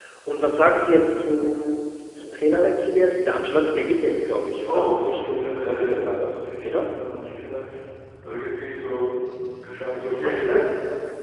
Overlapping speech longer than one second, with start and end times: 4.7-6.8

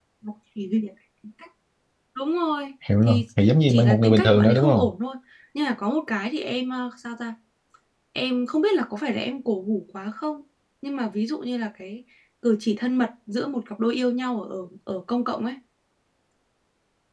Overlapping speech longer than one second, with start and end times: 3.7-4.9

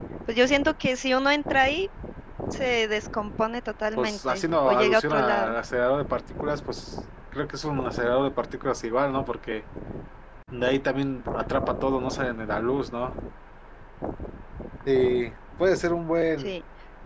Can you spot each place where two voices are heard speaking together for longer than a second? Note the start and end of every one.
4.0-5.5

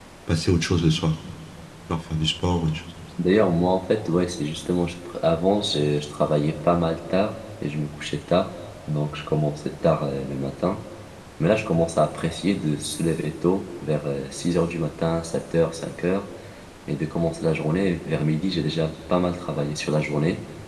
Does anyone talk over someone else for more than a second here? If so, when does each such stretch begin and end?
none

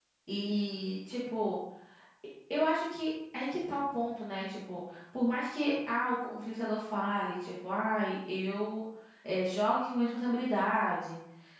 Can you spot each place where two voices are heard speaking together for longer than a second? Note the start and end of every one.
none

